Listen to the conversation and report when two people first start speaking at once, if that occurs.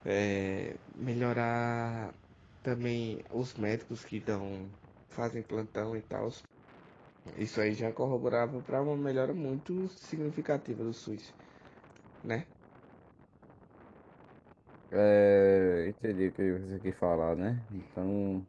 none

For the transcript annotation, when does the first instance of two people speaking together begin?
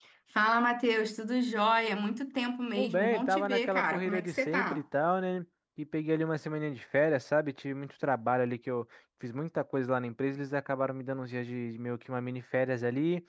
2.8 s

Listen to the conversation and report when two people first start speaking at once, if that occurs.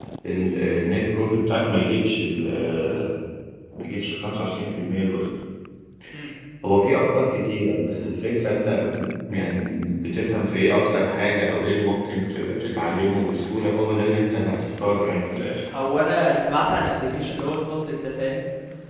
none

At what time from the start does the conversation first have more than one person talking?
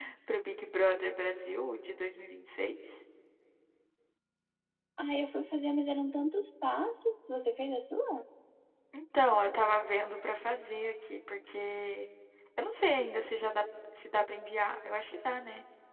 none

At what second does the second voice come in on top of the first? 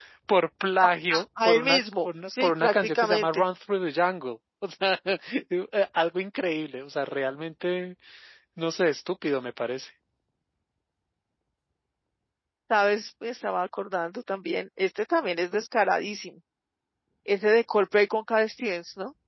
1.1 s

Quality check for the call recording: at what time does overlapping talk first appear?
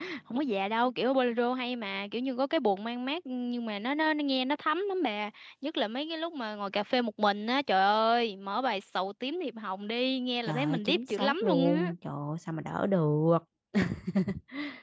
10.5 s

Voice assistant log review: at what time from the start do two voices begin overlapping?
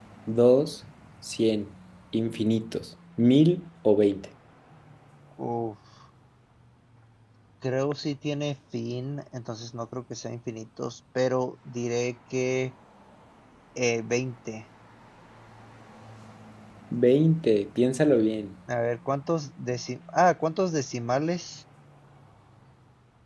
none

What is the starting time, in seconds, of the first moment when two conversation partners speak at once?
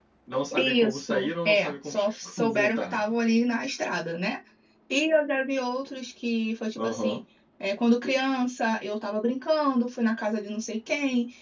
0.6 s

